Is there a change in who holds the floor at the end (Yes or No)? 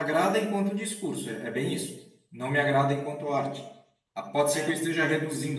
No